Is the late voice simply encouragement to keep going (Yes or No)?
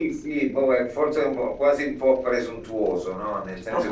Yes